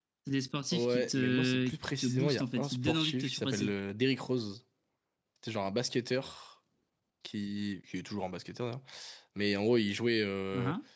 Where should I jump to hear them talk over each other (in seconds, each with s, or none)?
0.7 s